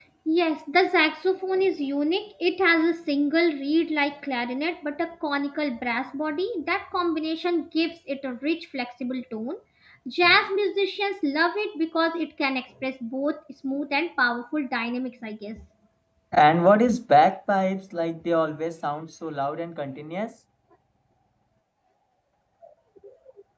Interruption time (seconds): none

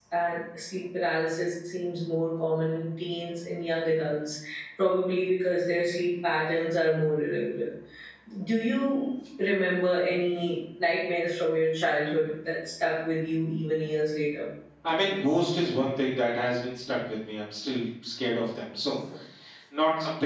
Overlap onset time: none

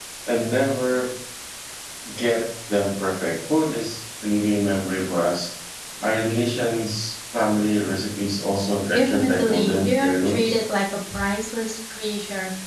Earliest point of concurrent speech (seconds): 8.9 s

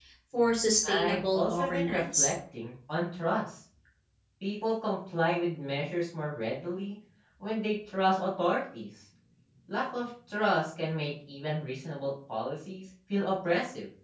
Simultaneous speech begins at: 0.9 s

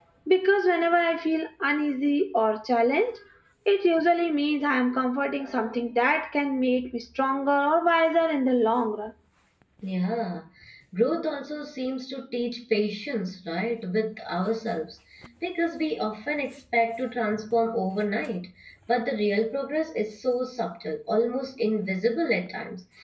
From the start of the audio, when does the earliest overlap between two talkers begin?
none

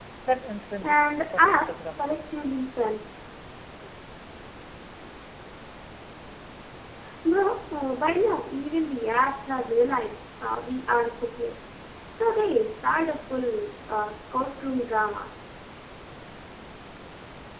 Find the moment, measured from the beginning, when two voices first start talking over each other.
0.8 s

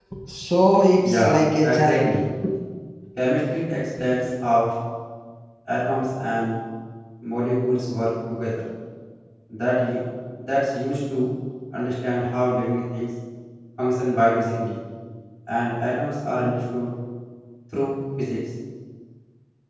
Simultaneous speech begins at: 1.0 s

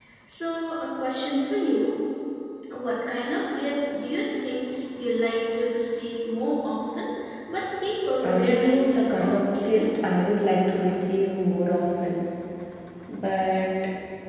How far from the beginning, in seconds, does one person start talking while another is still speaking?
8.2 s

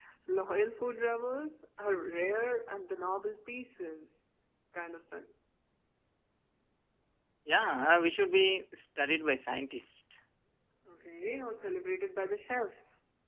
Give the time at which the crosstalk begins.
none

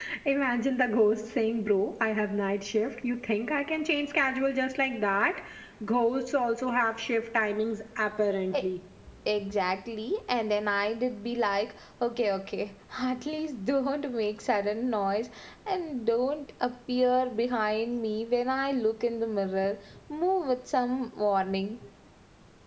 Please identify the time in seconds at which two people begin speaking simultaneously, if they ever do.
none

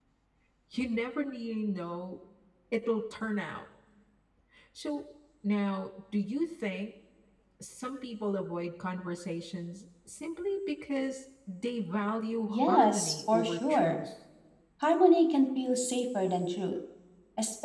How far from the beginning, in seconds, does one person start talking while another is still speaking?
12.5 s

